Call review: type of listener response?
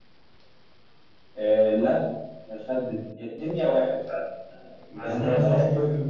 taking over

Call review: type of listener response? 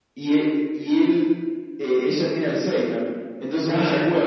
listening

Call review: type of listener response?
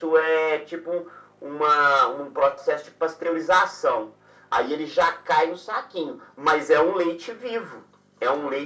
listening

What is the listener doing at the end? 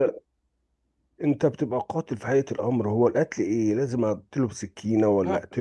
listening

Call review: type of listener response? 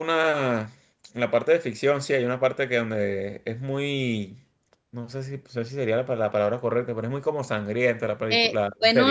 taking over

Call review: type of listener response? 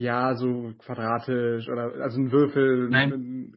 listening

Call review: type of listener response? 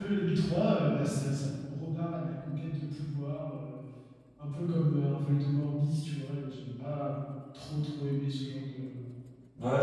taking over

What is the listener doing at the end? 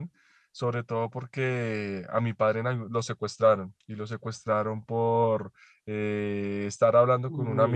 listening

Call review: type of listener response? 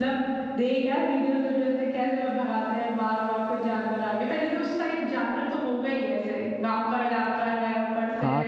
taking over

